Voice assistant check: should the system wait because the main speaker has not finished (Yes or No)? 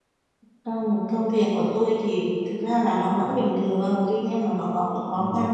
Yes